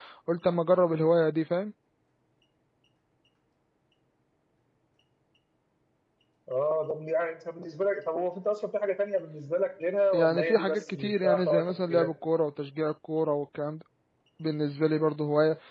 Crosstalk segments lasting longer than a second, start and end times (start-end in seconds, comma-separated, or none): 10.1-12.1